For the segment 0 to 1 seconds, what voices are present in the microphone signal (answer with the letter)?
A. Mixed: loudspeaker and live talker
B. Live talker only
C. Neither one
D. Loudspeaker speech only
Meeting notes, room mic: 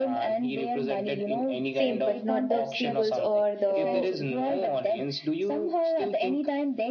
D